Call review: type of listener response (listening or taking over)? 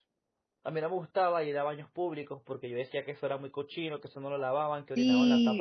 taking over